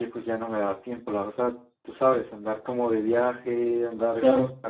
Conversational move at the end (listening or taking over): listening